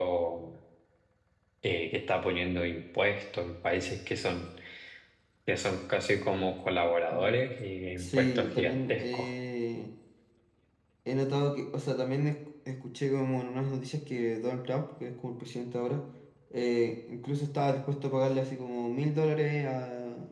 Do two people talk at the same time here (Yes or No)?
Yes